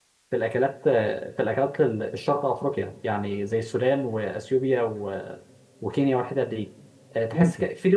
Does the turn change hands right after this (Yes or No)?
No